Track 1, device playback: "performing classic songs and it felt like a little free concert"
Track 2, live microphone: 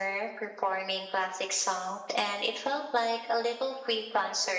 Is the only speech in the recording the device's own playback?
Yes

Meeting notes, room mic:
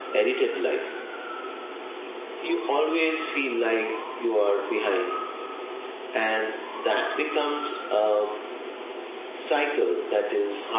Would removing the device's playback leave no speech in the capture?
Yes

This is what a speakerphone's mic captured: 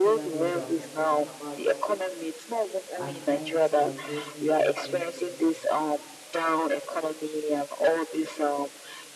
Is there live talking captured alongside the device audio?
Yes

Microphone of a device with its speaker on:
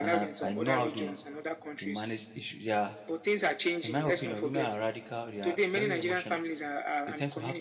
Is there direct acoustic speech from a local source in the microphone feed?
Yes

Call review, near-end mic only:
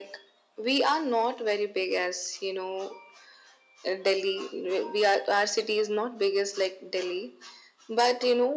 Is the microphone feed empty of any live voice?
Yes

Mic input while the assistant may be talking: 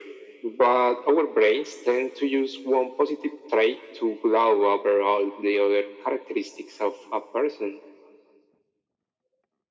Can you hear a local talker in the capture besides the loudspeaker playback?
No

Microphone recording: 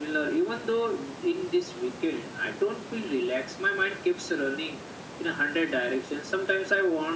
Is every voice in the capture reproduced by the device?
Yes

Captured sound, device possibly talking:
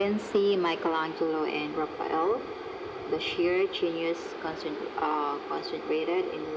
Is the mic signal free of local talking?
Yes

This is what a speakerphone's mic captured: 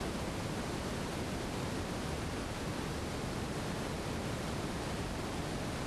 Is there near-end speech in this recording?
No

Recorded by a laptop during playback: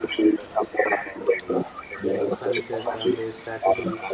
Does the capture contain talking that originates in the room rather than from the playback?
Yes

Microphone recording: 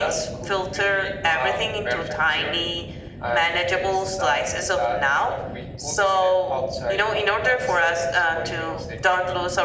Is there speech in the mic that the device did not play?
No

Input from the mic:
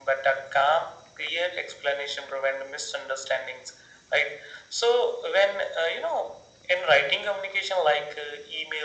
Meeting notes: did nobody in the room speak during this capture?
Yes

